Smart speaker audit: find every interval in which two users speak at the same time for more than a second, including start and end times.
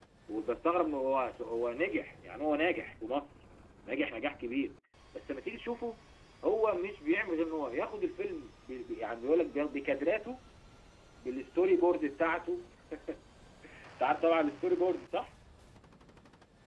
none

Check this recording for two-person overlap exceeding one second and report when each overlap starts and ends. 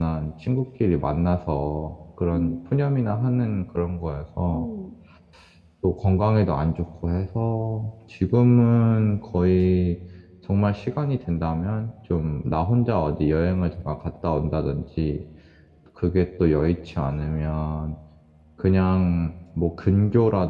2.3-3.6

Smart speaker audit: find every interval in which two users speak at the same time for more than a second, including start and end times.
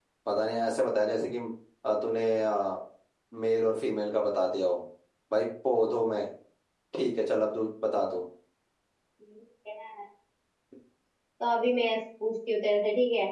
none

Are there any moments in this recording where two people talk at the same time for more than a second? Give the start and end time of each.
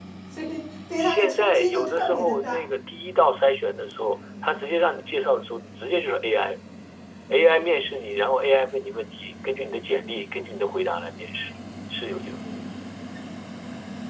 1.0-2.6

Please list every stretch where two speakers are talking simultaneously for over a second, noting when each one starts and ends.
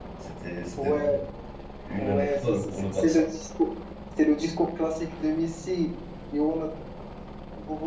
2.0-3.2

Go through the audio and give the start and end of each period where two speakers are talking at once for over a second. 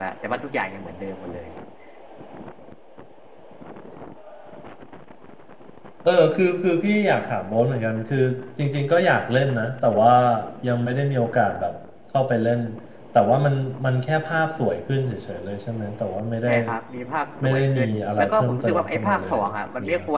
17.4-19.4

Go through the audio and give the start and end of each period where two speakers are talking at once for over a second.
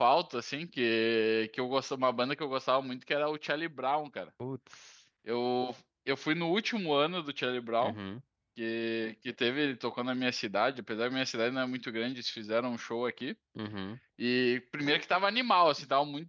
none

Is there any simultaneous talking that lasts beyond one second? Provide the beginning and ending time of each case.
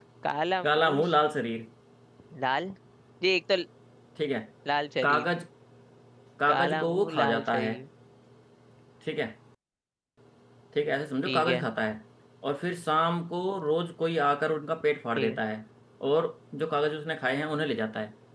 6.5-7.7

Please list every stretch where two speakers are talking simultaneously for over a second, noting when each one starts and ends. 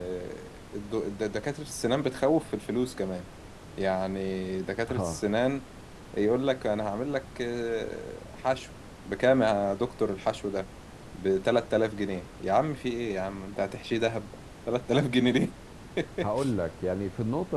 none

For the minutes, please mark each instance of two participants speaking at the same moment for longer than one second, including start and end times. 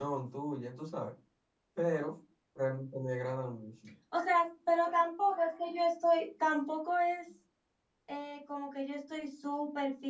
none

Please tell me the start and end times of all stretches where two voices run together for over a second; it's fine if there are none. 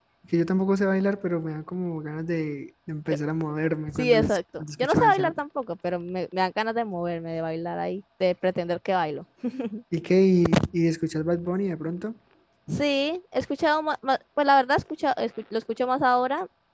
3.9-5.4

